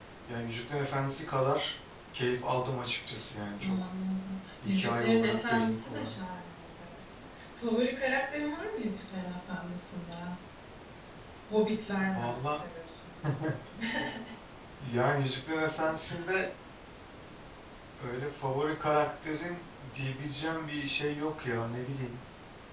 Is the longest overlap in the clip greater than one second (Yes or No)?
Yes